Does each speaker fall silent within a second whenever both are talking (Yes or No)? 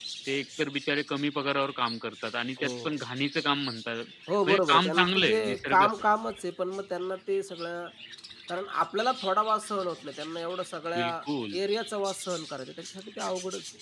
No